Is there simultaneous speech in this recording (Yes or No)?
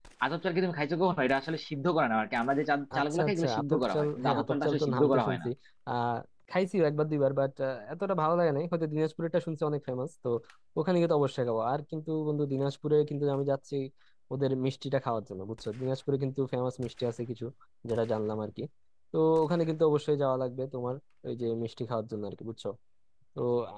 Yes